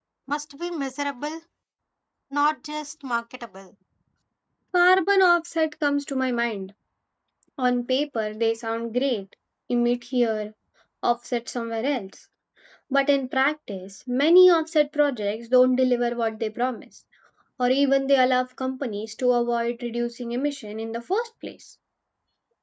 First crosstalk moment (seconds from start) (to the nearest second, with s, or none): none